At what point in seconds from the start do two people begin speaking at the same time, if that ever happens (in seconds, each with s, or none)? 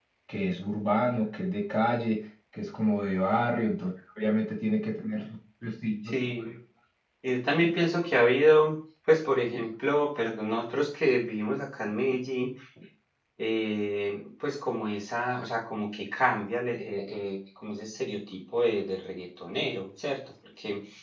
none